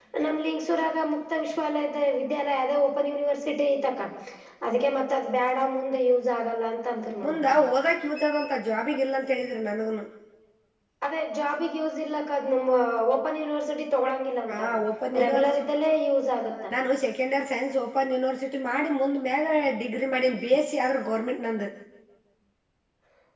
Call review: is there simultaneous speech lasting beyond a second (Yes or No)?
No